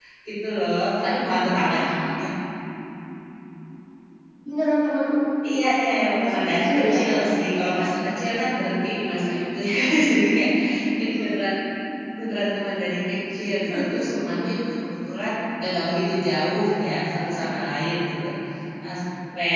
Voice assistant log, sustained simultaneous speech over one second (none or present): present